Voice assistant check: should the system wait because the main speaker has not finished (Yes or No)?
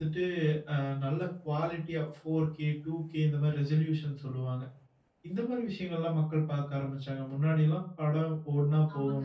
No